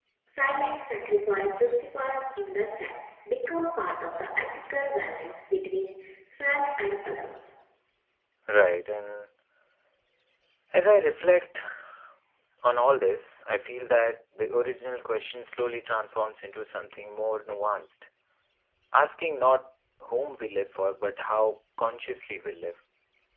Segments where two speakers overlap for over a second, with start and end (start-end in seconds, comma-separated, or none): none